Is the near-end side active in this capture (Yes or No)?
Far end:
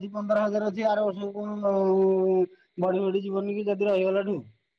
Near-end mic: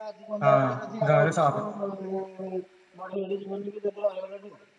Yes